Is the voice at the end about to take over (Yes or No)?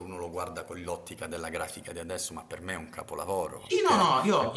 Yes